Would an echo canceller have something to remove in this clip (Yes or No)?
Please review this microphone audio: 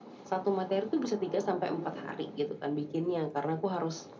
Yes